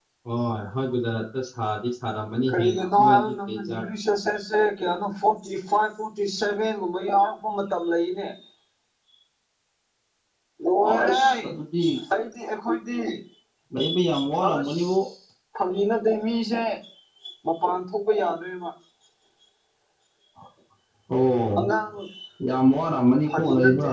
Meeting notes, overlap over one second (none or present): present